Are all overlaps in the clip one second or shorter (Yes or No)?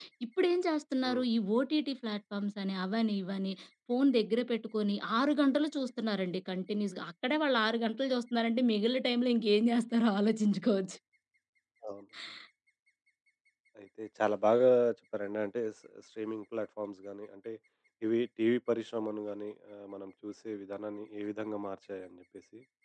Yes